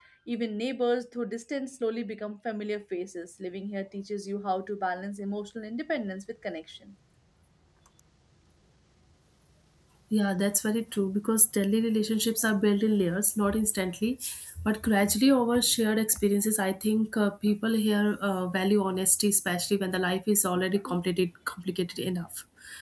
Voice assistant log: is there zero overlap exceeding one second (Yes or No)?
Yes